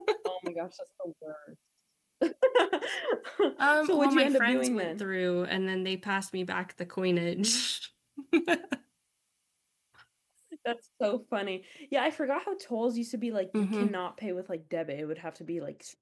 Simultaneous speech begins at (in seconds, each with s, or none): 3.8 s